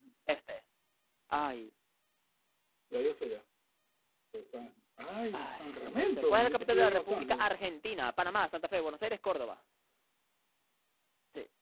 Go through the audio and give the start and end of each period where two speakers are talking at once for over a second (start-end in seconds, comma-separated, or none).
5.3-7.5